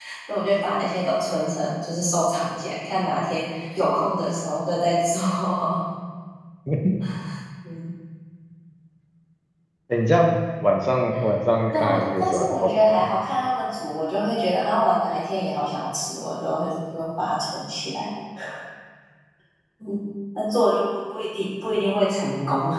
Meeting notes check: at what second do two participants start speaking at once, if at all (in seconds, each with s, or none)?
11.7 s